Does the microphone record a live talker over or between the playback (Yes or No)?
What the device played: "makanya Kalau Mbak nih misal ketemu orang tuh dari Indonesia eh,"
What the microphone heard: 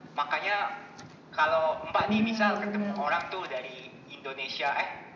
Yes